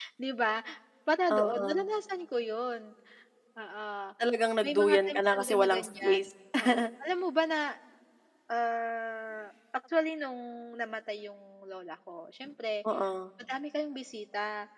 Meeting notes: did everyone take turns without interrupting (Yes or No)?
No